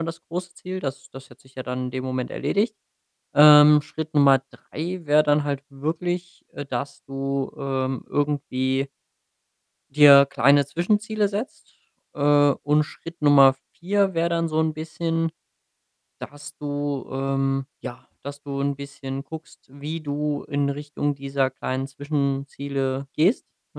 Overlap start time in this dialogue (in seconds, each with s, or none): none